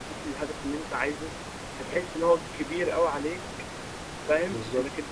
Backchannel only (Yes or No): Yes